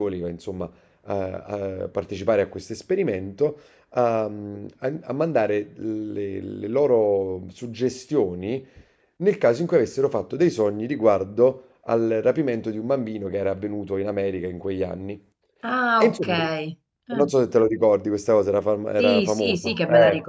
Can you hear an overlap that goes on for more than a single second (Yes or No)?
Yes